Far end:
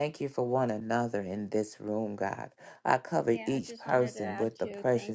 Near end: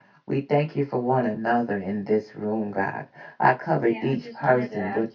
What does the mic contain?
echo only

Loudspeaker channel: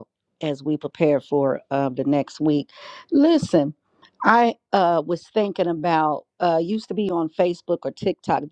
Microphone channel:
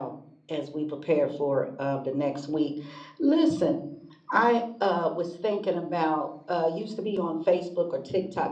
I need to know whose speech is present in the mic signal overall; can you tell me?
echo only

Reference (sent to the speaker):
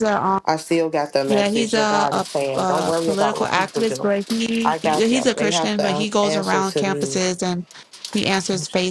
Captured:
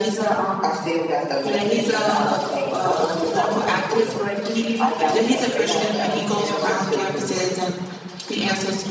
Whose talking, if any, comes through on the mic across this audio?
echo only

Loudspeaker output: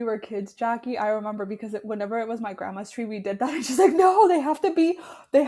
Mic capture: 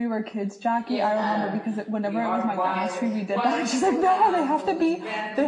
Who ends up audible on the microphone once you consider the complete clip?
both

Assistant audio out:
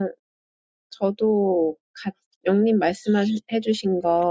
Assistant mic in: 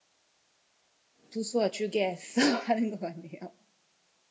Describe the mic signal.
user only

